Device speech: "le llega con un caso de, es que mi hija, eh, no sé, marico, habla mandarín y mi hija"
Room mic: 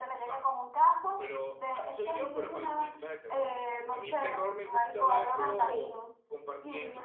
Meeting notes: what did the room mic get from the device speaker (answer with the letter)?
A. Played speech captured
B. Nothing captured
A